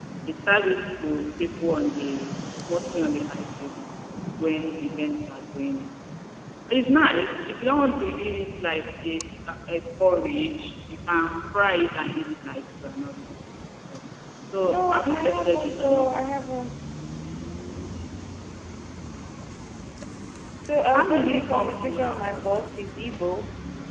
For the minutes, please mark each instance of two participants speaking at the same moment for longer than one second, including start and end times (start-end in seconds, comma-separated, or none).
14.6-16.4, 20.9-22.7